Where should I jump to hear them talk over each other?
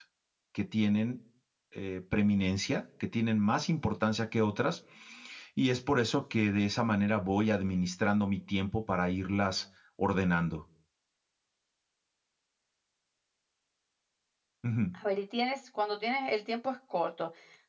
none

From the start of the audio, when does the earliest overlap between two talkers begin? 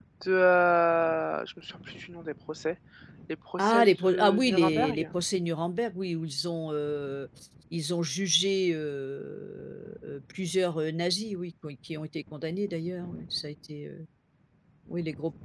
3.6 s

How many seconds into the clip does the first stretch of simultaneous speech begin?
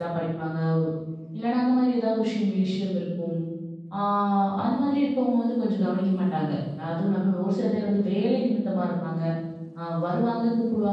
none

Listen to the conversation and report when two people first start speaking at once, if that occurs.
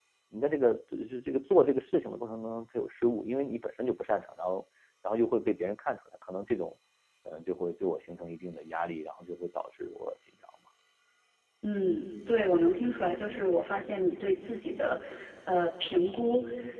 none

